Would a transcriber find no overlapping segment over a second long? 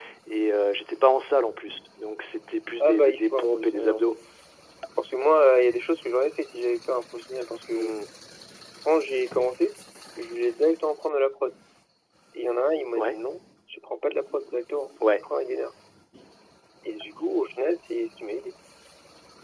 No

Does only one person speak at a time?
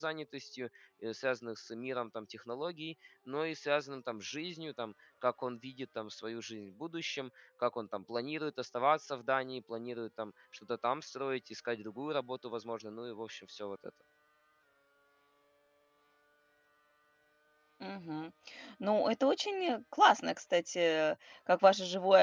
Yes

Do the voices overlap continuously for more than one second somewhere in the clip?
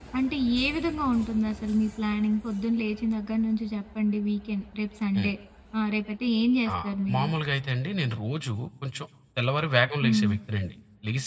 No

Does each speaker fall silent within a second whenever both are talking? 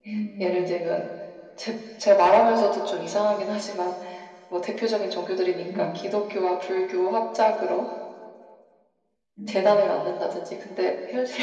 Yes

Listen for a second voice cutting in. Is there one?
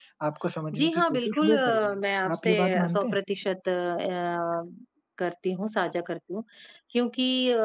Yes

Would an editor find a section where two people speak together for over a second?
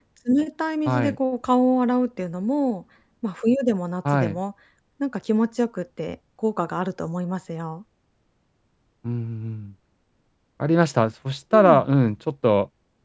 No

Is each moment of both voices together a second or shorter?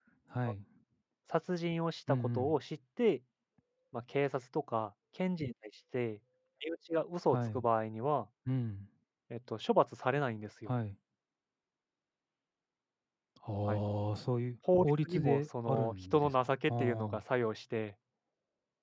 No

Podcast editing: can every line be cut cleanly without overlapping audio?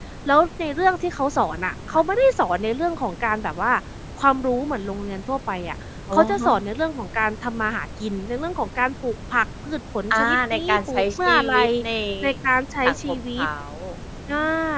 No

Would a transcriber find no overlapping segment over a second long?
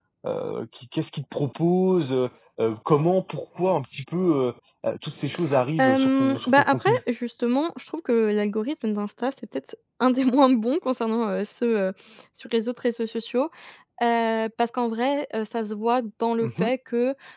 No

